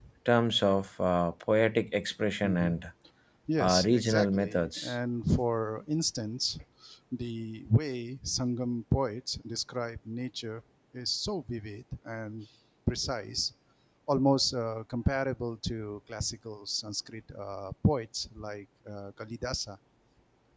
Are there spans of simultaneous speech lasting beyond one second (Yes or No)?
Yes